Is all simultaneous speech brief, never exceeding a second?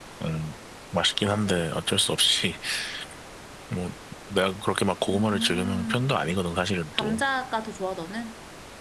No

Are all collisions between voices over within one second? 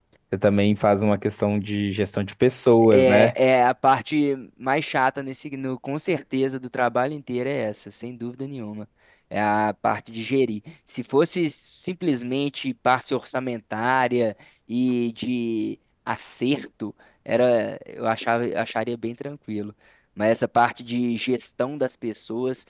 Yes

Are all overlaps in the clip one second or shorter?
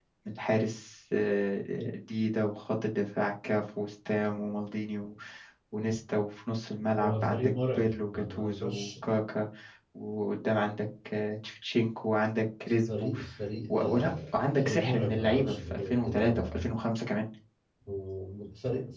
No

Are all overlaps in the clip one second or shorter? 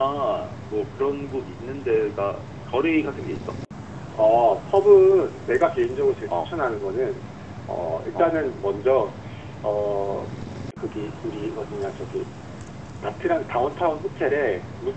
Yes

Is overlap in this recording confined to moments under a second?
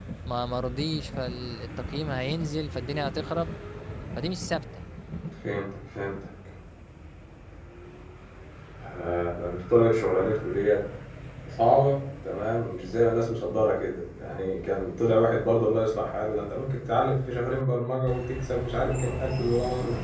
Yes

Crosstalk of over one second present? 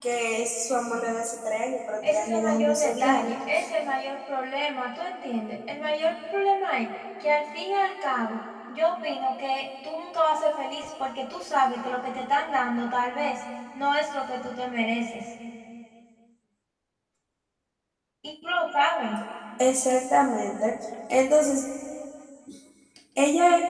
Yes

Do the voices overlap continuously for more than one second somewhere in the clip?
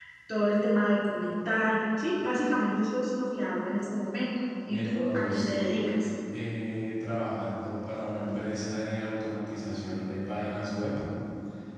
Yes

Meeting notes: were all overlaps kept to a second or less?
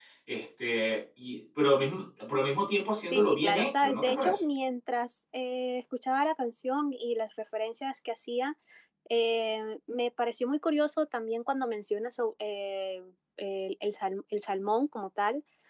No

